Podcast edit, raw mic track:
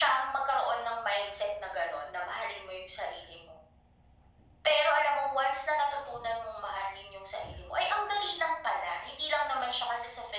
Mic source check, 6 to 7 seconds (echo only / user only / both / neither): echo only